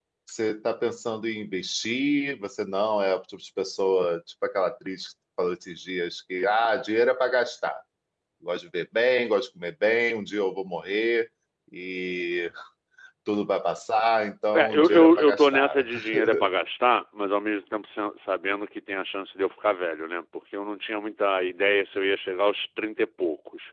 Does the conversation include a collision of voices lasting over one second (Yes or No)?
Yes